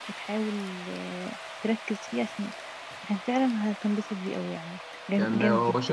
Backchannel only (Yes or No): No